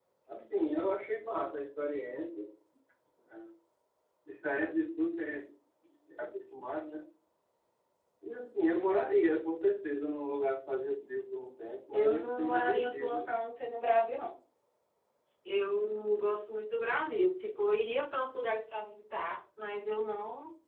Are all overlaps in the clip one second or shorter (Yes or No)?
No